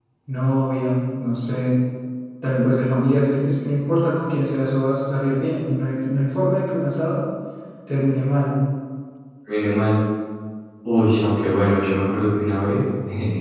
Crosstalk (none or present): none